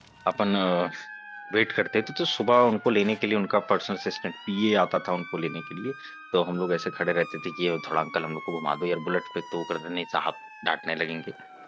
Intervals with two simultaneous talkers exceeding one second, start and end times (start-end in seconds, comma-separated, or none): none